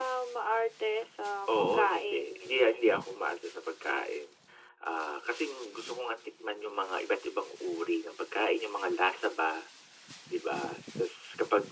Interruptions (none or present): present